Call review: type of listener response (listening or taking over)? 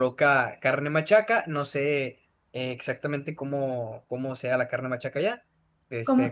taking over